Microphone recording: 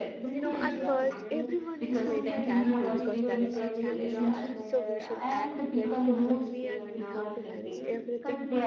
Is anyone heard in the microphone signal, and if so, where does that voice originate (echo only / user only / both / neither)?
both